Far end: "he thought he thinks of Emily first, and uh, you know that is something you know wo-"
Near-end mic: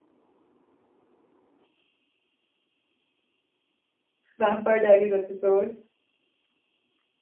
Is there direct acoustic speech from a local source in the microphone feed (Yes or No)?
Yes